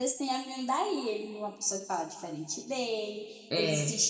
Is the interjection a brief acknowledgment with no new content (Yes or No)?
Yes